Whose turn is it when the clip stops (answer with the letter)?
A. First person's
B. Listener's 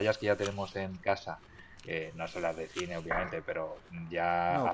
A